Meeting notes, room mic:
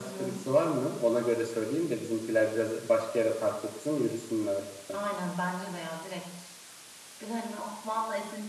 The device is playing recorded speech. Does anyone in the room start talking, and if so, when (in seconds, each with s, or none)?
none